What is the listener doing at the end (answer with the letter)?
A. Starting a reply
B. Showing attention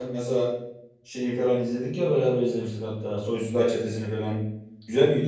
B